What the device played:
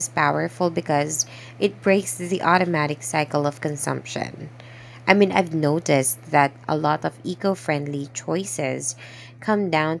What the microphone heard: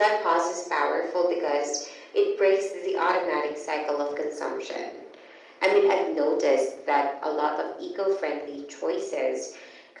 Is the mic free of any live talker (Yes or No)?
Yes